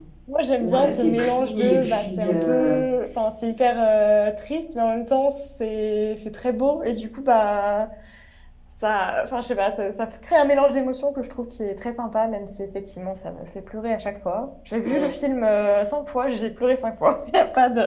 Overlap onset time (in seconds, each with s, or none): 0.6 s